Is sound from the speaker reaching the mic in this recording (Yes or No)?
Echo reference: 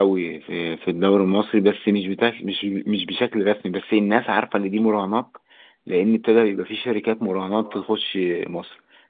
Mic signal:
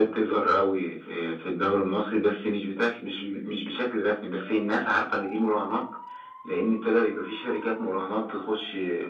Yes